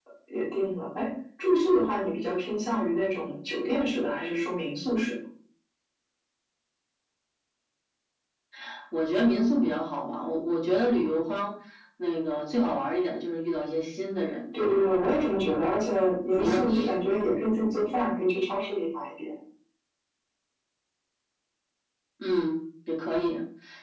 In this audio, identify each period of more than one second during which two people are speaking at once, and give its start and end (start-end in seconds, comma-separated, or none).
none